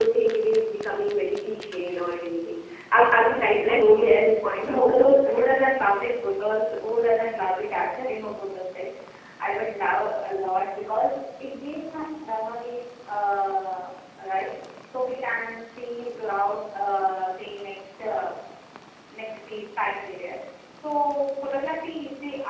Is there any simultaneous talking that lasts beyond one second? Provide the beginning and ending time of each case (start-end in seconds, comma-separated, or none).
3.6-5.3